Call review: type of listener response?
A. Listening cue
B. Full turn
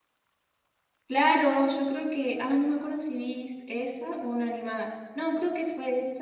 A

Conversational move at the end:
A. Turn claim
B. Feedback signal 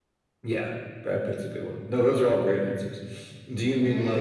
A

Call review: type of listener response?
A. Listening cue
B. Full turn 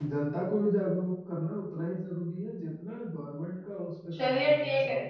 B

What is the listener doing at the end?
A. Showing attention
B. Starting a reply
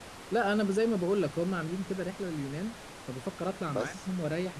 A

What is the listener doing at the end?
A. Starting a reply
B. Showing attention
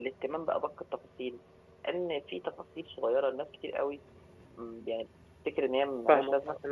A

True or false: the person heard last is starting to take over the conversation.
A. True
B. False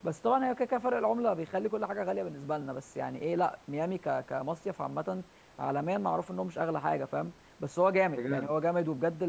B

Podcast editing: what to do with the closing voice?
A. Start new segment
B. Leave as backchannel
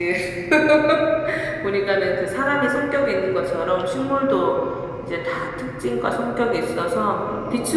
B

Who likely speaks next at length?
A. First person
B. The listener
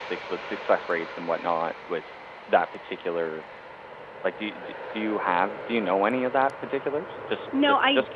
B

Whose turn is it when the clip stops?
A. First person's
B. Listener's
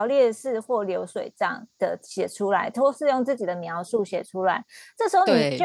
A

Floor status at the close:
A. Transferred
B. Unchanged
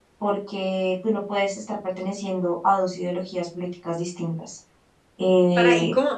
A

